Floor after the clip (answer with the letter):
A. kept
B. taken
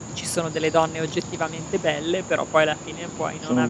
A